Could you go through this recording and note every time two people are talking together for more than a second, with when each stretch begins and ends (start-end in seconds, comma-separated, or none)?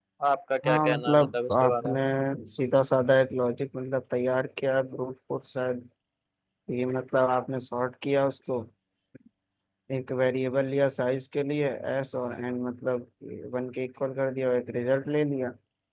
0.6-2.0